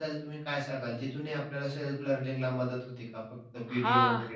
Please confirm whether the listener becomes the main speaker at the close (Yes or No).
Yes